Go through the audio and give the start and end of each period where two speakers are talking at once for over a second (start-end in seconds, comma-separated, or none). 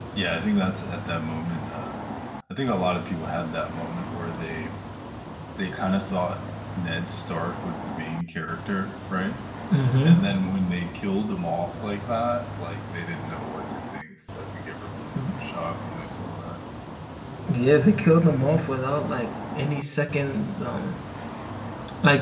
none